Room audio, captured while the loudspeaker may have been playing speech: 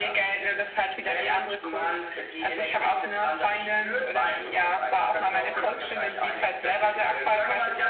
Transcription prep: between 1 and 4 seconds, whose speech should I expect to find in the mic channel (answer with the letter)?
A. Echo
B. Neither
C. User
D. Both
A